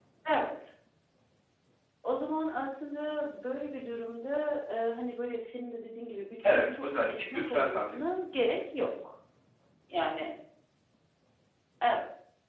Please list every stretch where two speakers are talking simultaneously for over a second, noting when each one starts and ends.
6.4-8.1

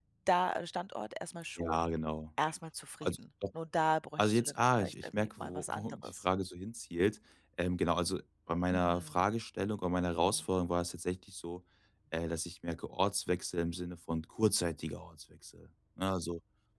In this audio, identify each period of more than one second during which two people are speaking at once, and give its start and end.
4.2-6.2

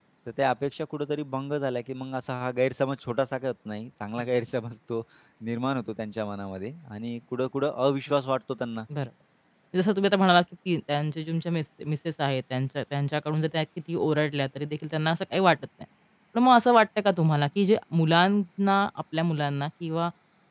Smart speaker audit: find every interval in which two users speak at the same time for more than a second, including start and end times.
none

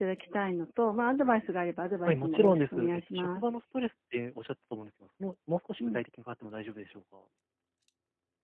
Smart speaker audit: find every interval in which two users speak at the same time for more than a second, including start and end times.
2.0-3.4

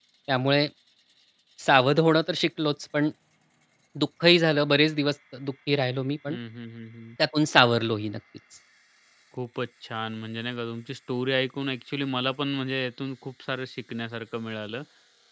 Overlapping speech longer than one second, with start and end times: none

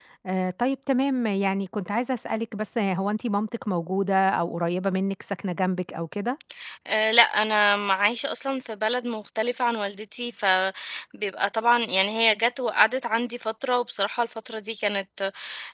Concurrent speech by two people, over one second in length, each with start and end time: none

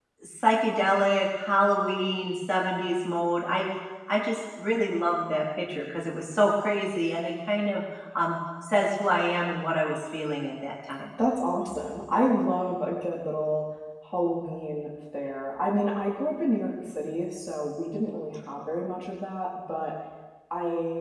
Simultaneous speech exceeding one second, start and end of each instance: none

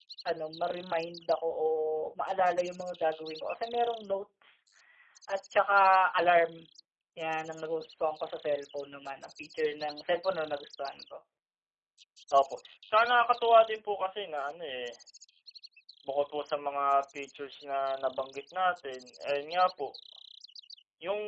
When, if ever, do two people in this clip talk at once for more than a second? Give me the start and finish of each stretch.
none

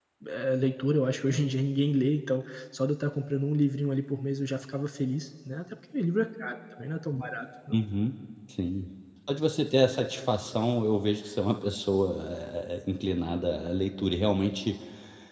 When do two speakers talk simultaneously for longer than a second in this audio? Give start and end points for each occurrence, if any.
none

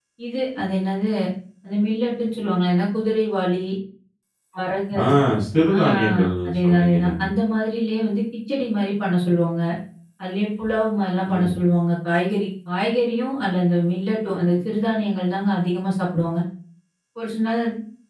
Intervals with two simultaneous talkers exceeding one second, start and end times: 5.8-7.2

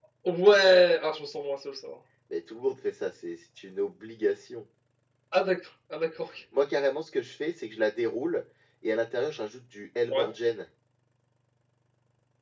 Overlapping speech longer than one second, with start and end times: none

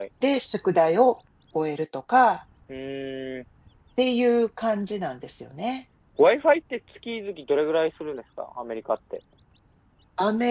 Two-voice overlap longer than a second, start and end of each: none

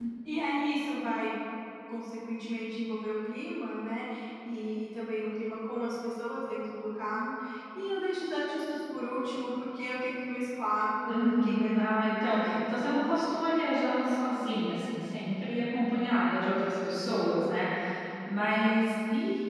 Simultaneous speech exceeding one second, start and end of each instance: 11.1-12.5

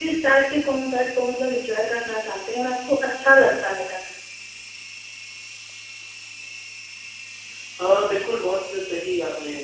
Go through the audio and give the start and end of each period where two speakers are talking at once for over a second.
none

